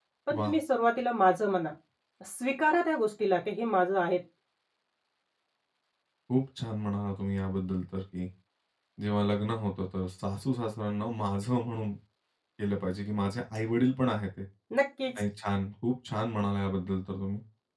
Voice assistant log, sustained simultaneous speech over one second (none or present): none